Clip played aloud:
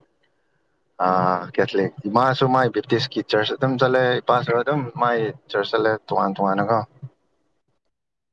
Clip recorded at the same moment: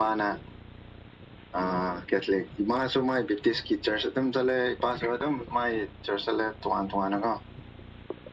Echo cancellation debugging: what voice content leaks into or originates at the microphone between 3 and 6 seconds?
echo only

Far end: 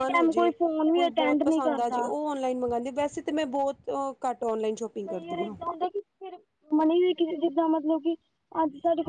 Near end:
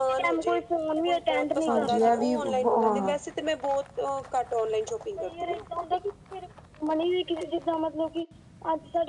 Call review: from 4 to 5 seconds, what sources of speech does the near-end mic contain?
echo only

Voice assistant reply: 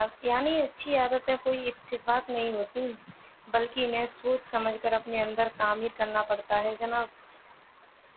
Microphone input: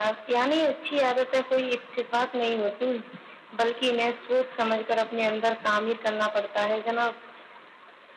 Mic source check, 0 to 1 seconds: echo only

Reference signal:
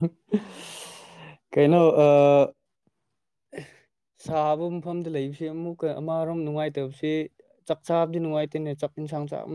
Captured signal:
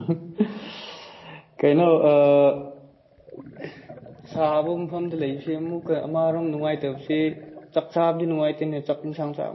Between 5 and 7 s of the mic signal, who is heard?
echo only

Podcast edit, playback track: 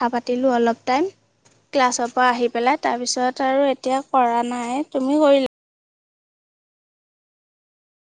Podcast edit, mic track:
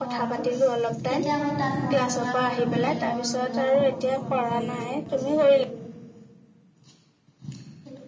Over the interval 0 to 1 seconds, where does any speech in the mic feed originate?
both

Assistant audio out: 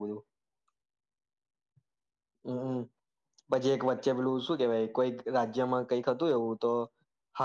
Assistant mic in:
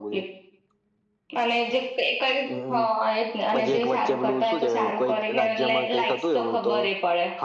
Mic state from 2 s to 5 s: both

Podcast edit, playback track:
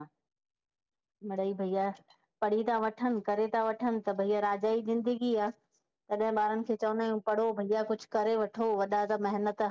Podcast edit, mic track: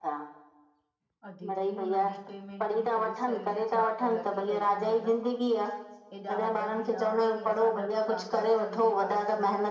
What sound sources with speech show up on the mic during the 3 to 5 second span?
both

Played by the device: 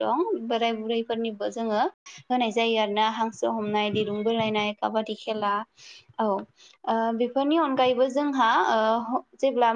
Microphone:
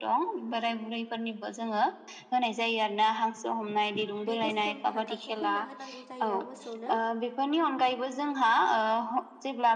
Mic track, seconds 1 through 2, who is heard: echo only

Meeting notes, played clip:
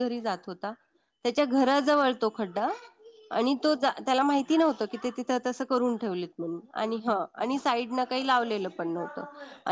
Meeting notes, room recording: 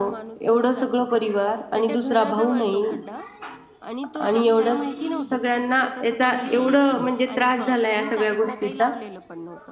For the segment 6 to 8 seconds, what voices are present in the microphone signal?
both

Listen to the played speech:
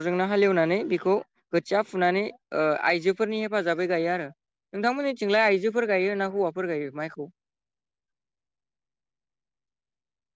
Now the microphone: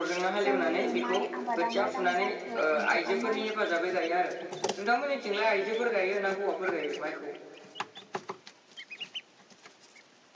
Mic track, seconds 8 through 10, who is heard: neither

